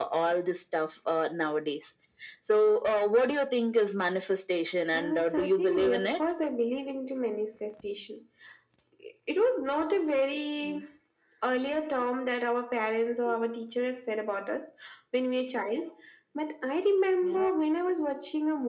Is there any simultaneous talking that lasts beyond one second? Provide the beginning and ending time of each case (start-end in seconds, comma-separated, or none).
4.9-6.2